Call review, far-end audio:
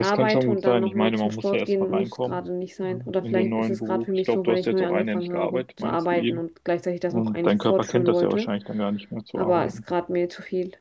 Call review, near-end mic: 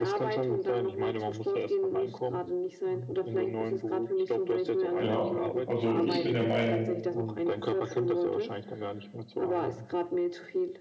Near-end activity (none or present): present